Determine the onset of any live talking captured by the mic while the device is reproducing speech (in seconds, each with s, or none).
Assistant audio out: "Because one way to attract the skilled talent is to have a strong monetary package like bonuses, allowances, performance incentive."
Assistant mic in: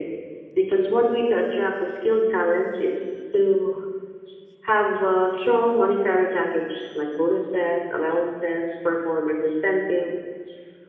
none